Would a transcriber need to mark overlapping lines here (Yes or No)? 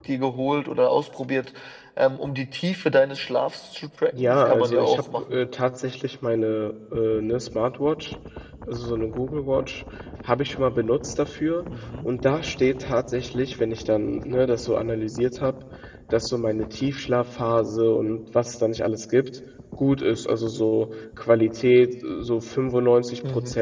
Yes